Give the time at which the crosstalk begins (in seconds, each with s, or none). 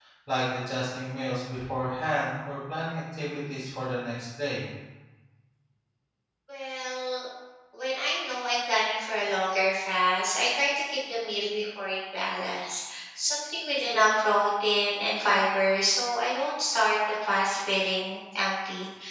none